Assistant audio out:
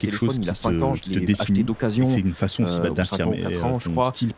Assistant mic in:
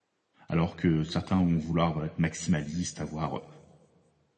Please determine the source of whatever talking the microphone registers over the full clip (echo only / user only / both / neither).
user only